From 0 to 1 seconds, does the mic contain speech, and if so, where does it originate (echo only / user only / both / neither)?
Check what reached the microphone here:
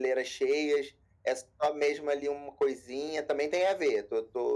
echo only